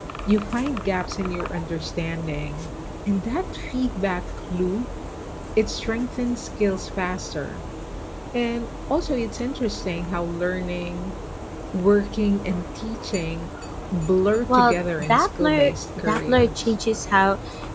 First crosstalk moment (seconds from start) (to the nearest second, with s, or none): 14 s